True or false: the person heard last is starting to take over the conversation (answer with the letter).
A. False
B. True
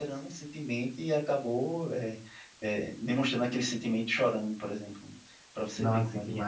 B